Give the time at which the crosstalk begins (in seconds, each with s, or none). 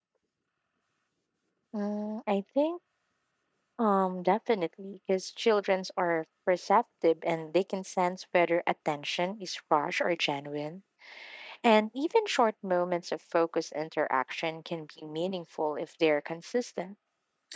none